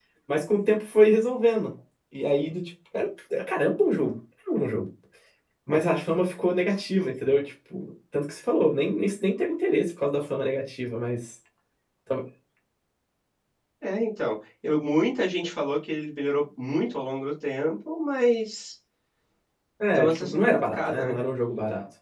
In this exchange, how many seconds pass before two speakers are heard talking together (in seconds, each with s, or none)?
19.9 s